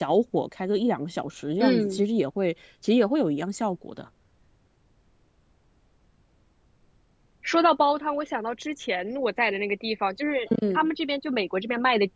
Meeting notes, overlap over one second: none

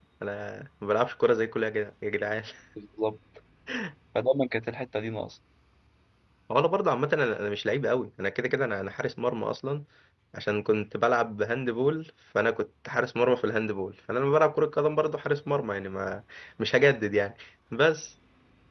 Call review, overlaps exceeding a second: none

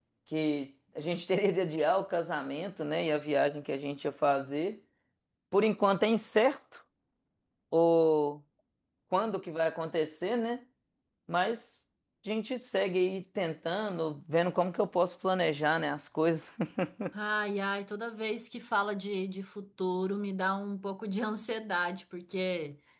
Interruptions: none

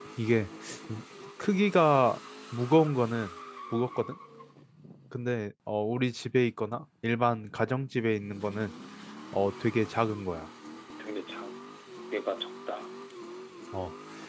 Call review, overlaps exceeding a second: none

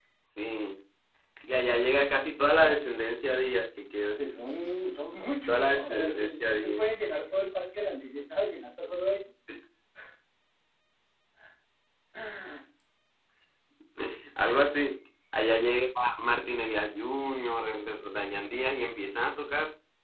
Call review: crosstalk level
present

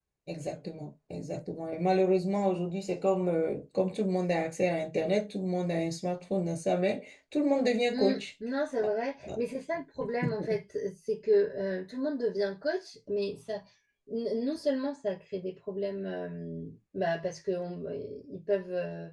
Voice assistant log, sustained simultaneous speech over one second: none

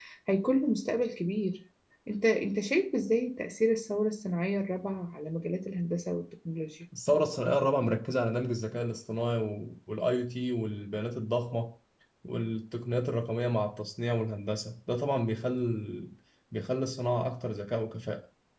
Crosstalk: none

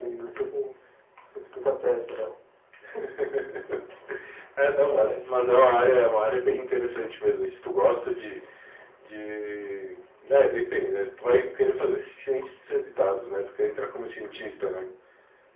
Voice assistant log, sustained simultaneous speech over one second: none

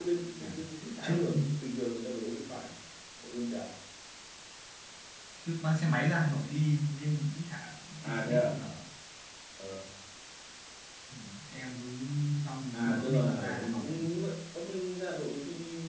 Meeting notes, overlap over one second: present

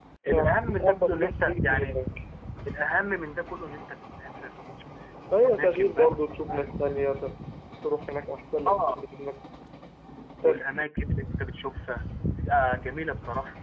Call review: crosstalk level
present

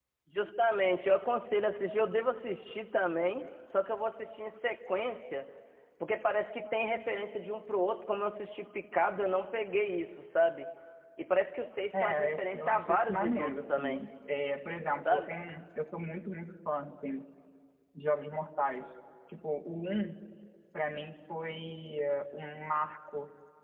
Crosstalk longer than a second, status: present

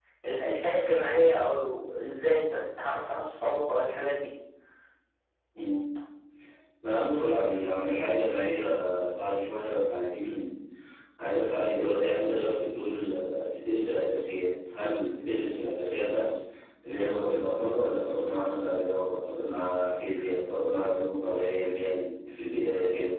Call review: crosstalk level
none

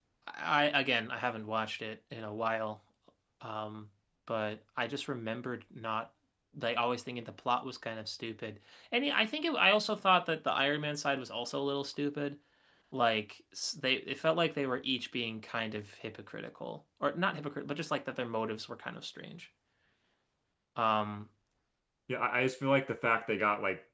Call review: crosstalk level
none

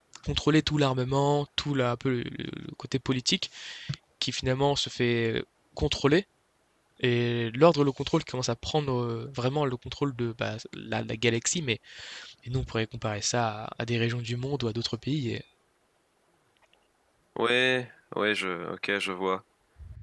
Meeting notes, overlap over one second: none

